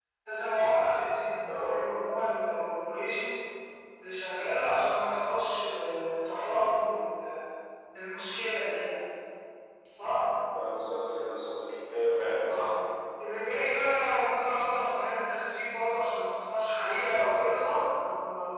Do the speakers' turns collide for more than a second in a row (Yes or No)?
No